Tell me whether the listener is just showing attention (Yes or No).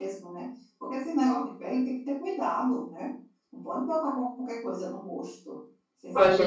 No